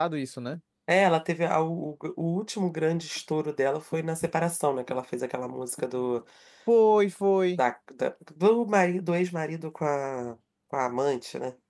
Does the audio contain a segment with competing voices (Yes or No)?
No